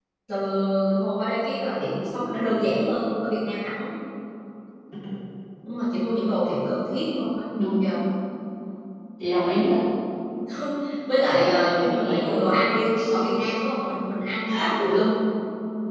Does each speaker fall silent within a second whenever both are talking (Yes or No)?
No